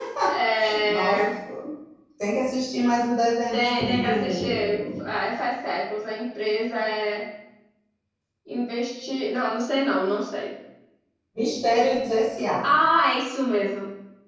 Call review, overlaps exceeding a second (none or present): present